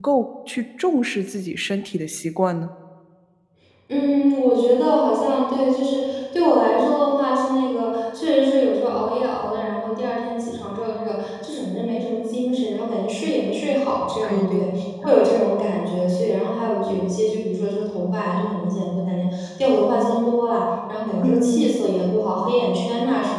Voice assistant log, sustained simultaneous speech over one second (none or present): none